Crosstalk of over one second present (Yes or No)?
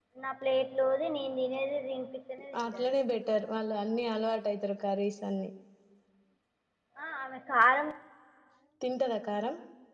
No